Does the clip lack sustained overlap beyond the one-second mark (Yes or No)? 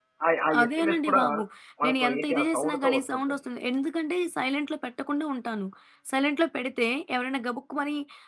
No